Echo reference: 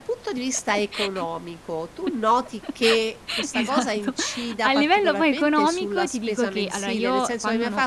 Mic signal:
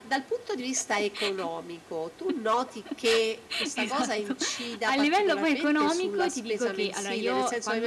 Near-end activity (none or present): none